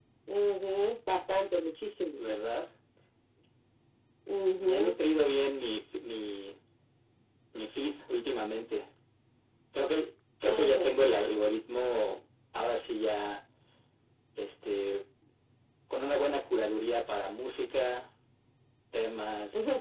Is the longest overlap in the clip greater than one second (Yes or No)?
No